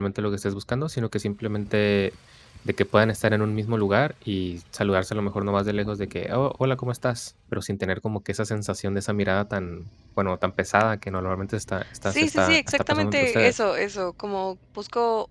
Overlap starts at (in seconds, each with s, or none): 12.0 s